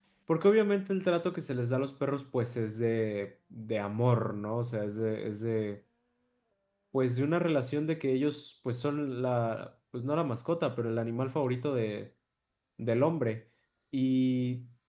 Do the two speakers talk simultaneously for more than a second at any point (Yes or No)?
No